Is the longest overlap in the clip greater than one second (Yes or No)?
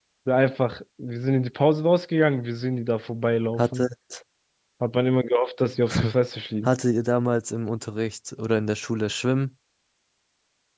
No